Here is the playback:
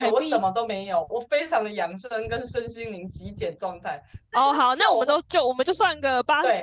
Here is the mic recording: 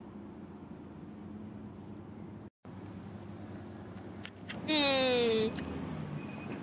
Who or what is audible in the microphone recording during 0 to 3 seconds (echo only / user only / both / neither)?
neither